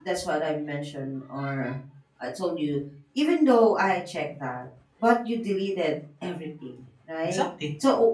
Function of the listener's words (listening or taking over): listening